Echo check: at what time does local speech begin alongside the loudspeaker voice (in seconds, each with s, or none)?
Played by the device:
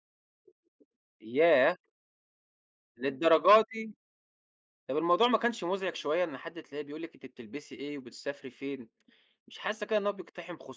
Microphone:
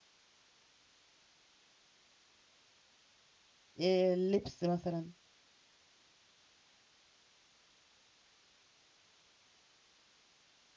3.8 s